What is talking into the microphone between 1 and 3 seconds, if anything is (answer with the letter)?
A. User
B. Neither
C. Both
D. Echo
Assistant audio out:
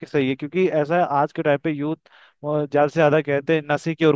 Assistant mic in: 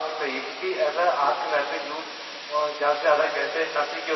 D